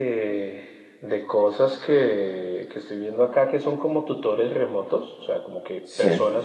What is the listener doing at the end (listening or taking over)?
listening